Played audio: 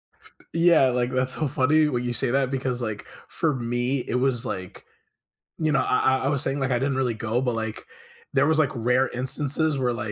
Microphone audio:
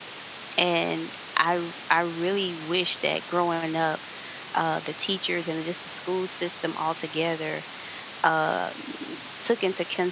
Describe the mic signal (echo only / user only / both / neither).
user only